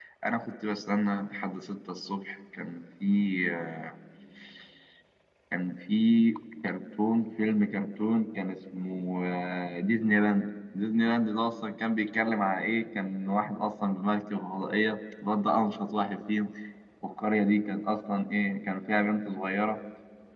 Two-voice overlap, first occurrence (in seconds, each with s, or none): none